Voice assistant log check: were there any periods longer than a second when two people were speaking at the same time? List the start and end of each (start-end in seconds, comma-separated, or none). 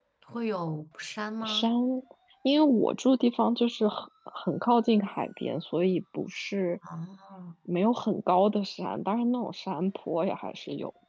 none